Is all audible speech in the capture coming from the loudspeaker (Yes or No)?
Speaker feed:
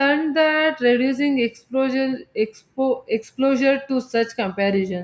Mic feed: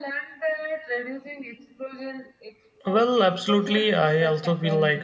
No